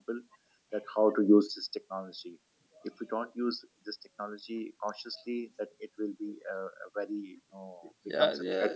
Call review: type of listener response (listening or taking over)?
taking over